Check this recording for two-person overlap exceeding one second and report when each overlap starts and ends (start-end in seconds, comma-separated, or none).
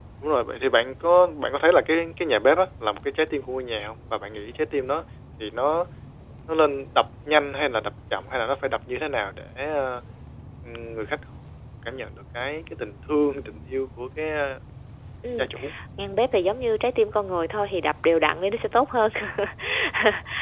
none